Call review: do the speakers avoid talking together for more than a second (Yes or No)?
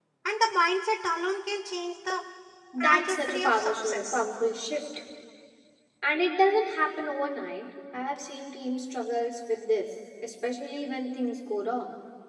No